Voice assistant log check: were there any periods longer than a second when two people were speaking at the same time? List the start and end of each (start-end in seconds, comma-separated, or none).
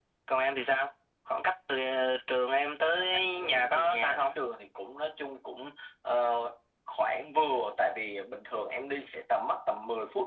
3.0-4.4